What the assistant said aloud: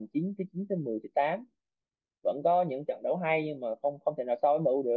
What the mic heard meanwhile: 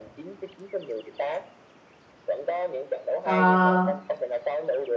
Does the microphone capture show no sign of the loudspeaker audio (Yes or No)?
No